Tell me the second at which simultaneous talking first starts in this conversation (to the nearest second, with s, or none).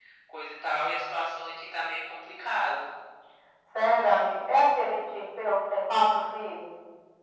none